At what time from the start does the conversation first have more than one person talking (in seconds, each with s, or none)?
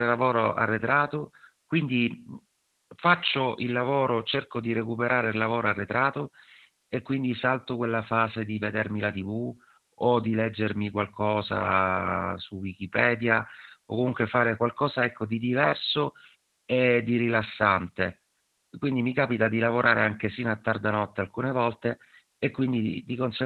none